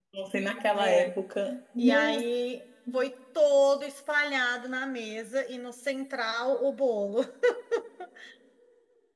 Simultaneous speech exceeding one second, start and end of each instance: none

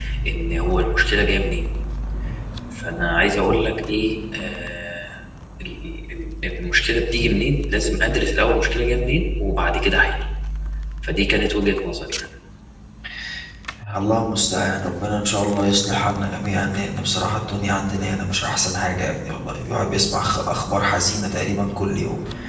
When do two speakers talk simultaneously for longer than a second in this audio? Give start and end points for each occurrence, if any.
none

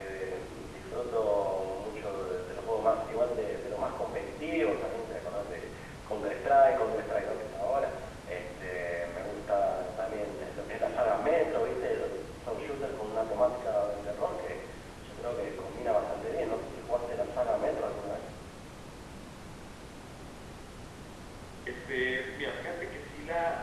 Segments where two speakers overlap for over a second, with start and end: none

